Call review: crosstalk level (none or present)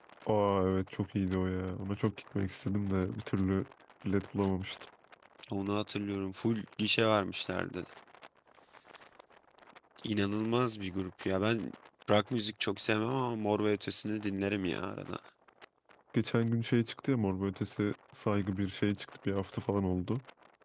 none